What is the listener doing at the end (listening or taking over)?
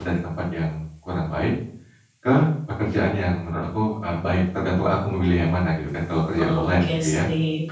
taking over